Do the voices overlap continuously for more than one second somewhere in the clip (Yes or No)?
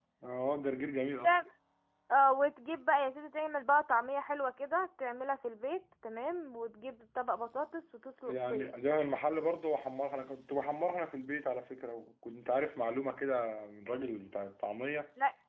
No